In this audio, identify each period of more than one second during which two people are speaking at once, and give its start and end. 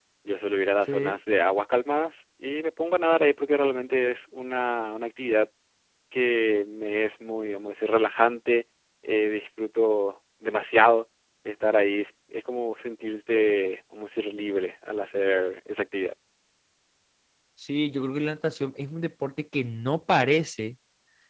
none

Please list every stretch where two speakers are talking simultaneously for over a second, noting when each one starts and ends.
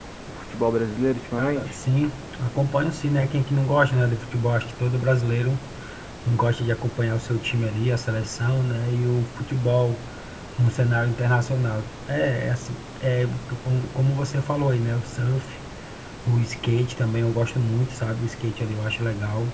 none

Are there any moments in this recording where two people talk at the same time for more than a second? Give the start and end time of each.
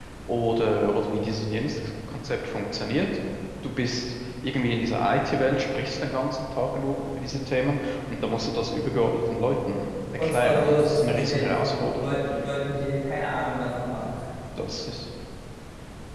10.2-12.2

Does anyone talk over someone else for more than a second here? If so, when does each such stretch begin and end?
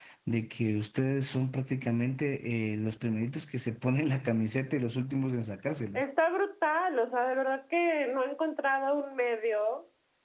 none

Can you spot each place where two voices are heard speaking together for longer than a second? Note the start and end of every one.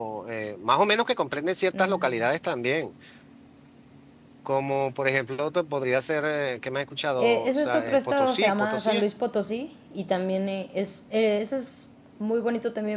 7.2-9.0

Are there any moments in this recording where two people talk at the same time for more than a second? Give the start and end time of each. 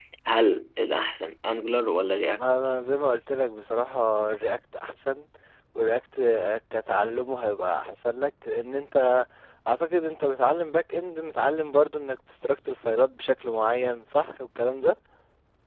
none

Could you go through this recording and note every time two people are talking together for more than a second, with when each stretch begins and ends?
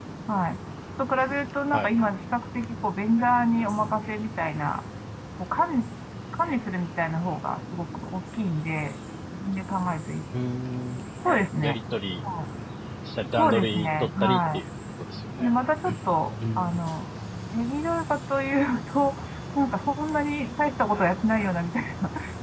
13.3-14.6

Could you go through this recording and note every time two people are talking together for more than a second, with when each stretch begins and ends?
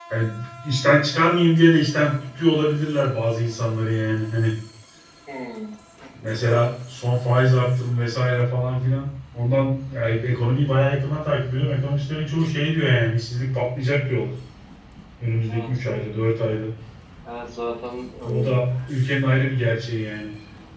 none

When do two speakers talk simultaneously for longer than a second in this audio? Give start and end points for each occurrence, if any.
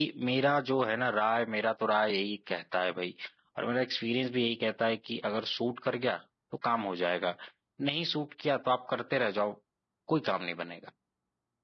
none

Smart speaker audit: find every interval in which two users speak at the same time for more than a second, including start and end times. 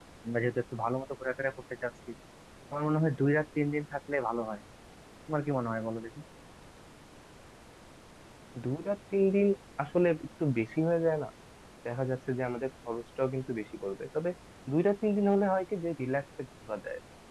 none

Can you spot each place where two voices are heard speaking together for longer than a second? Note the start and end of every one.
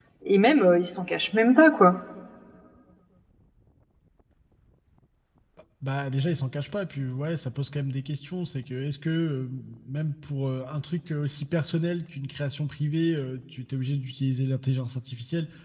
none

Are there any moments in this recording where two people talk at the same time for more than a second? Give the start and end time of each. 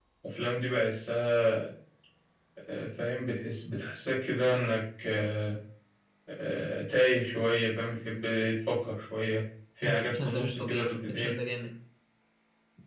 9.8-11.3

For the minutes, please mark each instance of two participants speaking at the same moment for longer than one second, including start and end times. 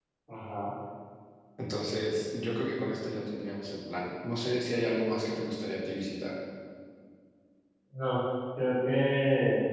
none

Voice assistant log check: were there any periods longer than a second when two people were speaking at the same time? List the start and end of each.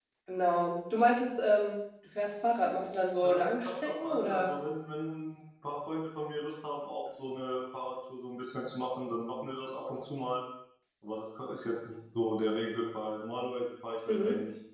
3.2-4.5

